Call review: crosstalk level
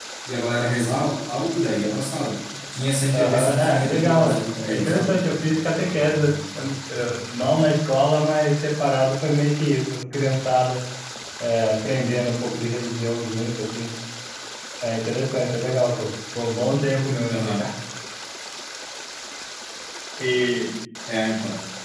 present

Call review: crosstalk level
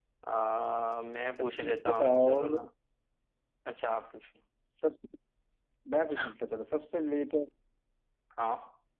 present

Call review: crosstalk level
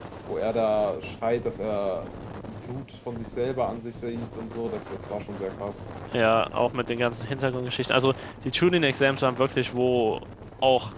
none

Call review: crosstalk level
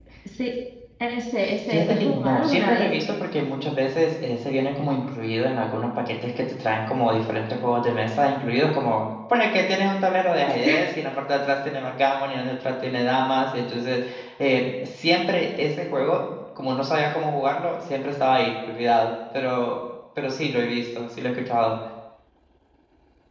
present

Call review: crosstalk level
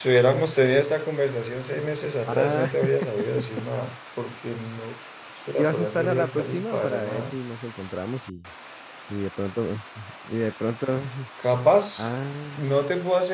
present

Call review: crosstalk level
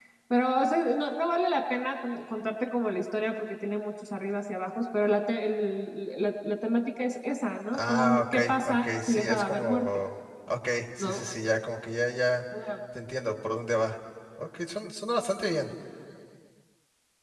present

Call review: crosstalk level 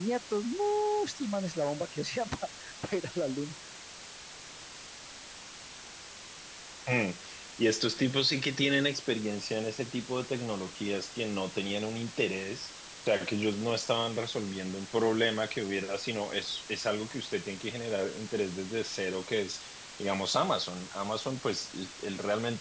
none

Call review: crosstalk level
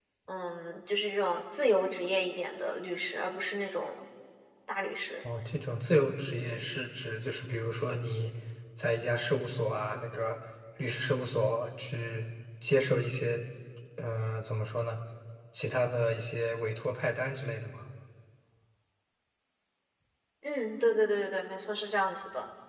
none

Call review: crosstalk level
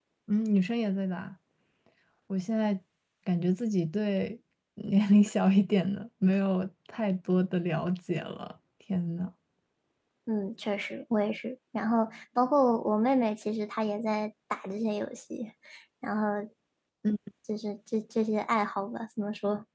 none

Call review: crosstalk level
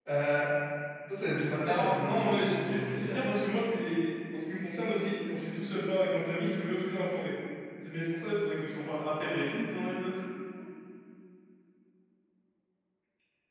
present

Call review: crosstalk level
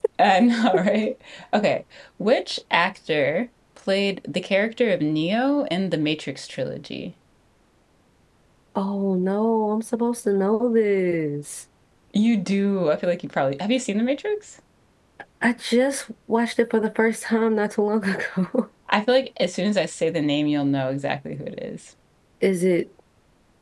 none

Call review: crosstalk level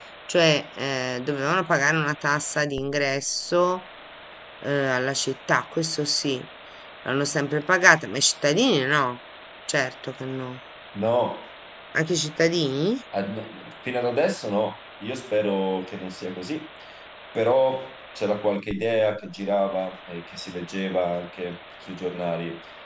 none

